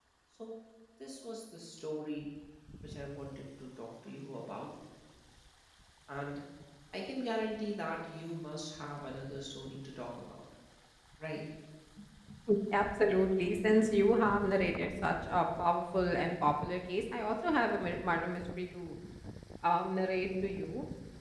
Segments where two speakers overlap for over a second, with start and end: none

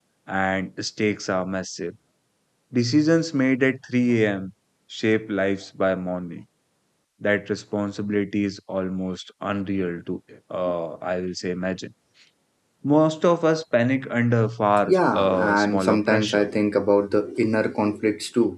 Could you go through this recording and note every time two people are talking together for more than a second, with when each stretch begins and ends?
14.9-16.5

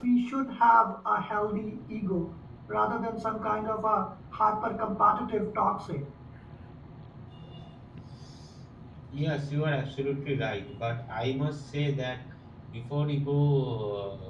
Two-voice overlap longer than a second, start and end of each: none

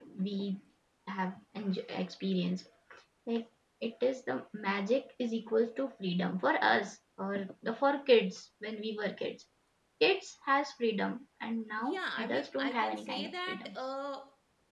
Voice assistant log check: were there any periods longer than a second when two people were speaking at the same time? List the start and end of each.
11.8-13.8

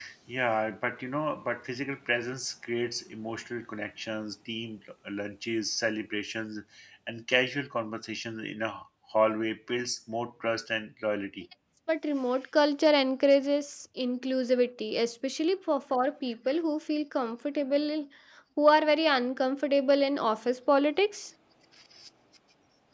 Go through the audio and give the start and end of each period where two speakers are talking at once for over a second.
none

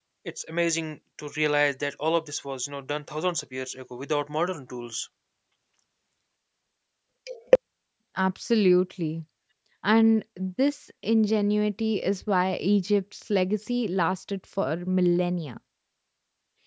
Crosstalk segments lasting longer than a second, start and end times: none

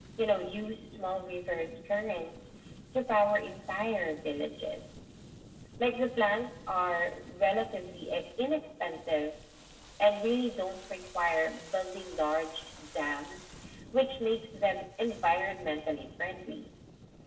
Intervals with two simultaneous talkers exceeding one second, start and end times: none

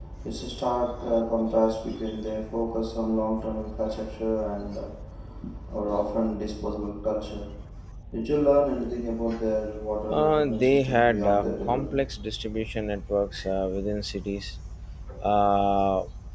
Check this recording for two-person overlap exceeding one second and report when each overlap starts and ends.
10.1-12.0

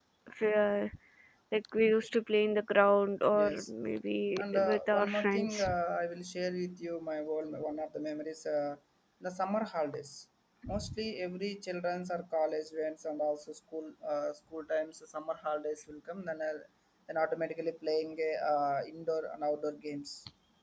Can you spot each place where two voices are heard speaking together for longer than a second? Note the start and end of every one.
4.4-5.7

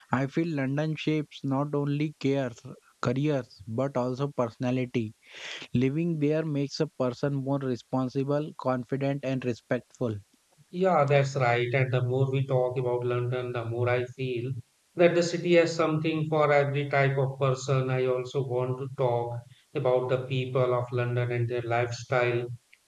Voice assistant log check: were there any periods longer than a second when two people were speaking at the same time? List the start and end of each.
none

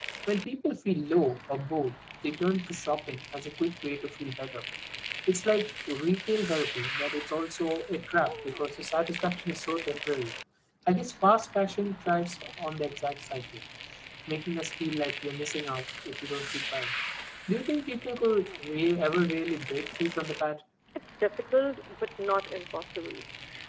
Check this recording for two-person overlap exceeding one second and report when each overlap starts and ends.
none

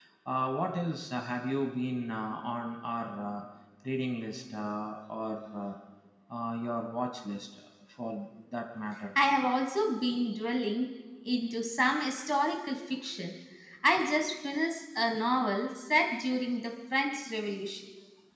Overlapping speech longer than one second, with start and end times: none

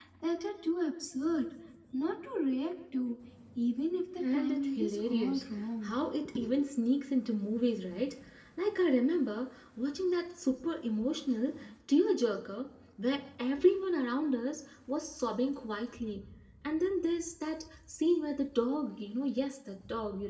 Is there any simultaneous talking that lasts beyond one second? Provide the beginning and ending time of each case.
4.2-5.9

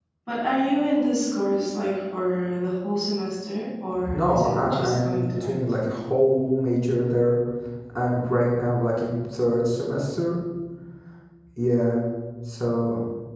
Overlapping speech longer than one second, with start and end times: 4.1-5.6

